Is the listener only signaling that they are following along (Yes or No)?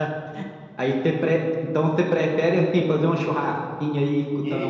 No